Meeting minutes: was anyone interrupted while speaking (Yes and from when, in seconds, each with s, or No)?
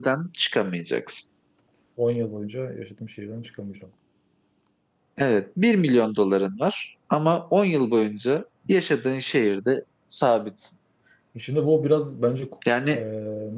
No